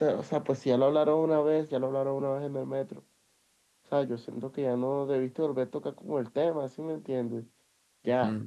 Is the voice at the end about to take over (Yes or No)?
Yes